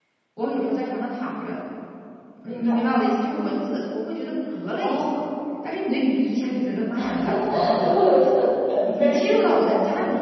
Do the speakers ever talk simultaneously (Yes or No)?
Yes